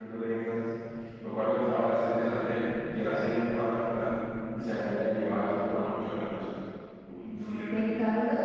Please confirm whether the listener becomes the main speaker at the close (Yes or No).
Yes